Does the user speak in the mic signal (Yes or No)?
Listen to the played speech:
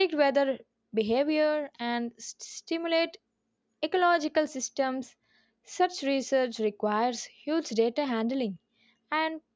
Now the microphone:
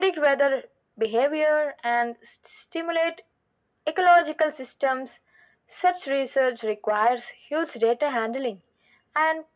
No